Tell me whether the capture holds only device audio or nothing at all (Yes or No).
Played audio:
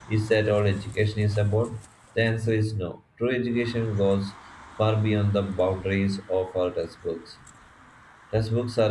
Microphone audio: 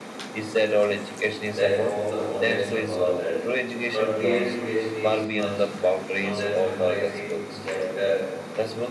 No